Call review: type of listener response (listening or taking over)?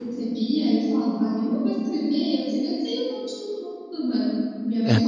listening